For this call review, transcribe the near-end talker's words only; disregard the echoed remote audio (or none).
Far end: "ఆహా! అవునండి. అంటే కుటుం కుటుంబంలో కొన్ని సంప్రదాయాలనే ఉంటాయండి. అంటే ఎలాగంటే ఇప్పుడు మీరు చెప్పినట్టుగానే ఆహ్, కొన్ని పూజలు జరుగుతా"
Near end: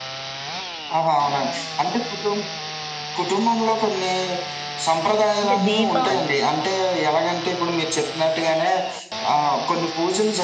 ఇంకా దీపావళి